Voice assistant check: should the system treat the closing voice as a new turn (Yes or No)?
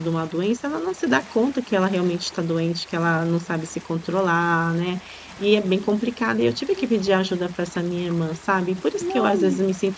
No